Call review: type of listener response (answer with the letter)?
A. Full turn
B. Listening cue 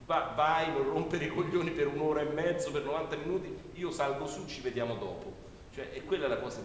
B